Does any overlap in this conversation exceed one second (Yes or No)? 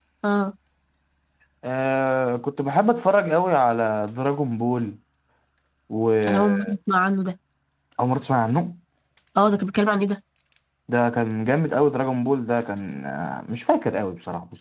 No